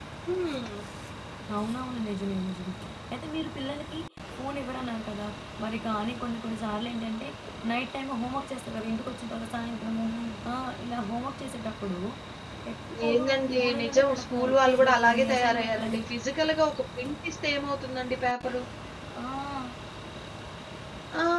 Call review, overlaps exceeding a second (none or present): present